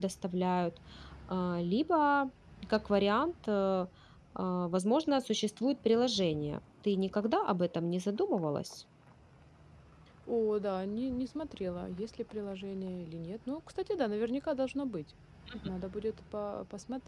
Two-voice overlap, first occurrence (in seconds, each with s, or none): none